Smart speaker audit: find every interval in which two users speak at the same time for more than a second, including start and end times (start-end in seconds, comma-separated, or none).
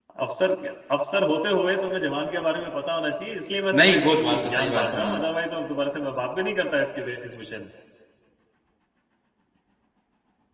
3.7-5.3